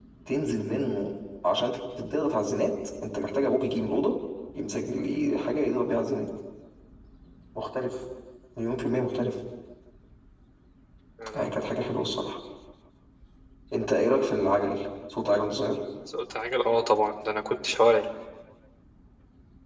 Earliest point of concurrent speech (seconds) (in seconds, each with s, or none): none